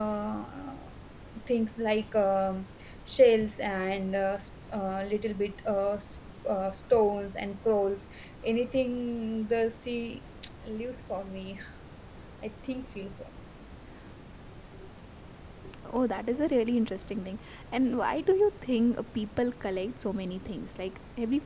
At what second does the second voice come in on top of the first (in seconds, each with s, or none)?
none